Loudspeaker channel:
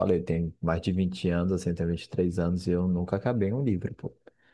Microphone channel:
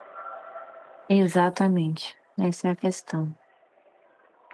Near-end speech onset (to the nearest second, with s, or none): 1 s